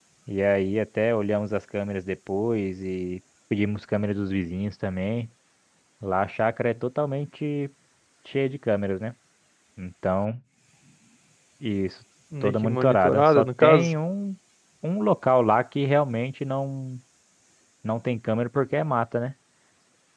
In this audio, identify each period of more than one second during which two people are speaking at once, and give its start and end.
12.4-13.9

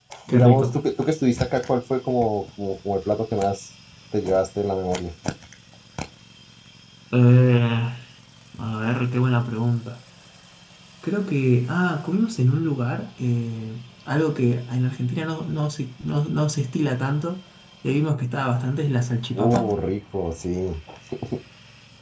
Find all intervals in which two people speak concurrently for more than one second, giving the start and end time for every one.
none

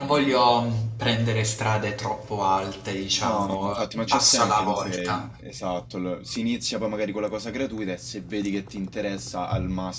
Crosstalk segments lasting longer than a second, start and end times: 3.2-5.3

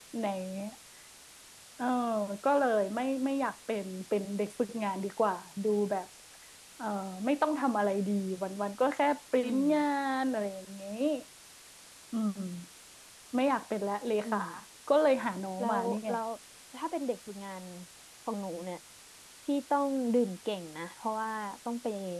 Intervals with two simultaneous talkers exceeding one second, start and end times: none

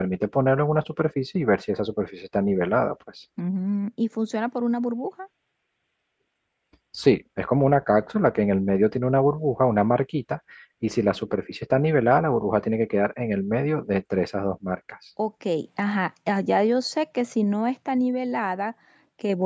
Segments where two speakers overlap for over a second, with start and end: none

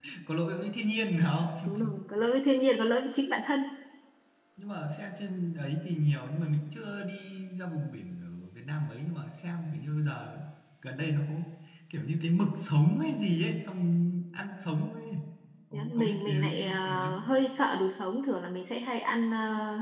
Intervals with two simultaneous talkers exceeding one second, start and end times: 15.7-17.2

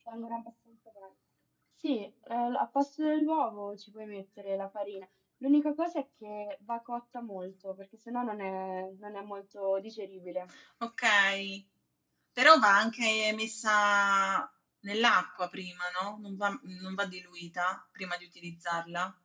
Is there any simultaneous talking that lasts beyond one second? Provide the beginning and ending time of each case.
none

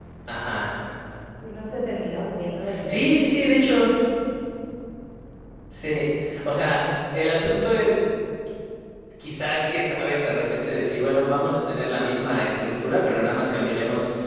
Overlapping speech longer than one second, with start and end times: none

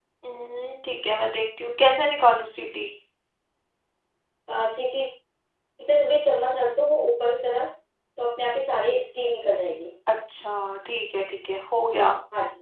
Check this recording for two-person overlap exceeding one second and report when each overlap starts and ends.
none

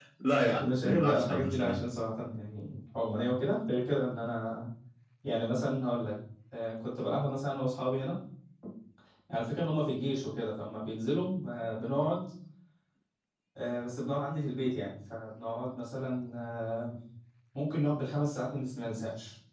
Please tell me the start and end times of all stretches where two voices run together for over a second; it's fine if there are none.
0.6-1.9

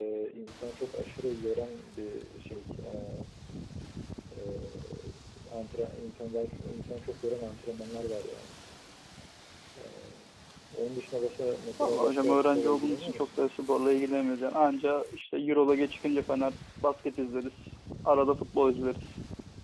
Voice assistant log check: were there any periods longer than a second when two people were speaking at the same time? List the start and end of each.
11.8-13.2

